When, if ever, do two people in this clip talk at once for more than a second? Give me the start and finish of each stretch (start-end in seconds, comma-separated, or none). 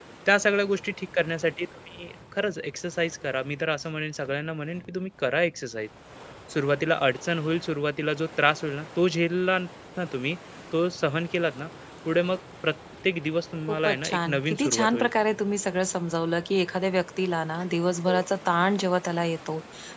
13.7-15.1